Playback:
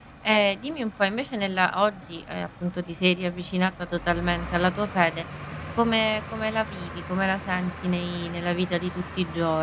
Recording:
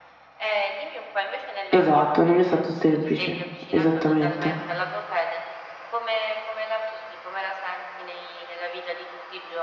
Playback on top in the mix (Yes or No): No